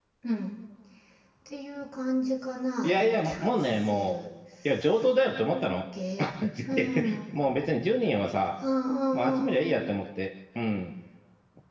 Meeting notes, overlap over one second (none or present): present